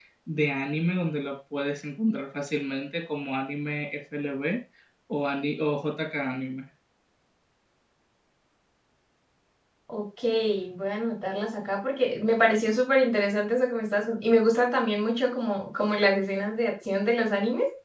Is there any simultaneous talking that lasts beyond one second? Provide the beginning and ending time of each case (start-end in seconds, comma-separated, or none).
none